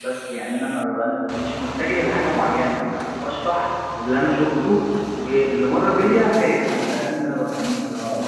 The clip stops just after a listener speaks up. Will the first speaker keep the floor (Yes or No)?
No